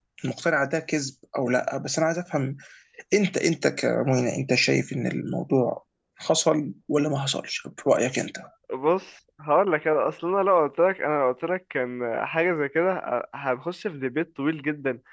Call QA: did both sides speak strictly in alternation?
Yes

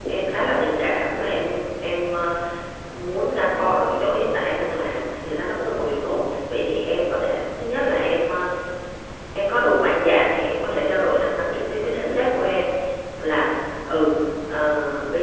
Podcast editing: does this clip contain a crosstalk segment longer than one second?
No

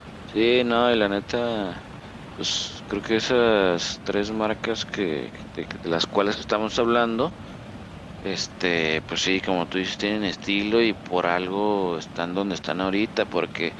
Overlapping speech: No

